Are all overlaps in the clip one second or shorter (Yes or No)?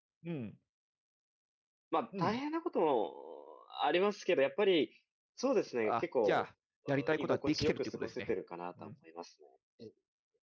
No